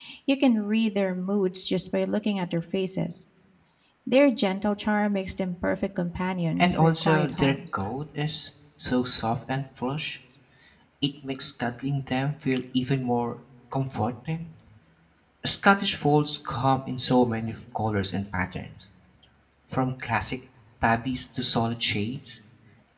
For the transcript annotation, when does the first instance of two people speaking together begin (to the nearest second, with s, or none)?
7 s